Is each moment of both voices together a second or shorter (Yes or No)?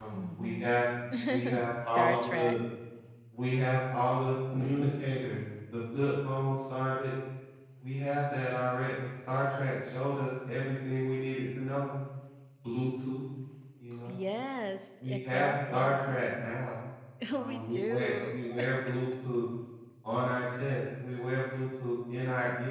No